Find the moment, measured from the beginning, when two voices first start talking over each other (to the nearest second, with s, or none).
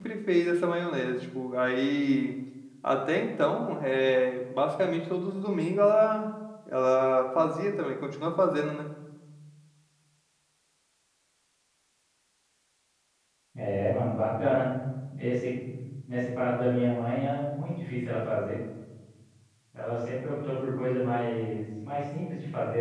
none